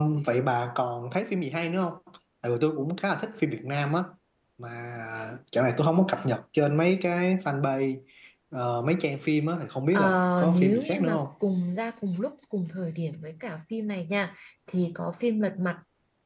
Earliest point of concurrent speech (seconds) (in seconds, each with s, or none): 9.9 s